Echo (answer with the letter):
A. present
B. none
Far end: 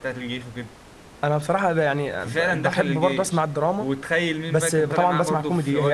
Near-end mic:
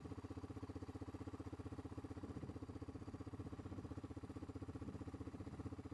B